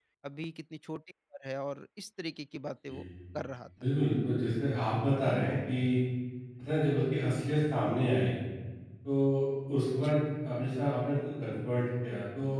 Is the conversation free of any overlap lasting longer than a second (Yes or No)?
Yes